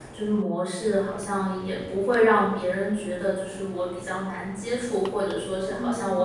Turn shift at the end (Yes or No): No